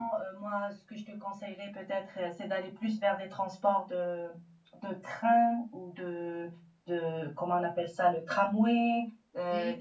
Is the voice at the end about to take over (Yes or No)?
No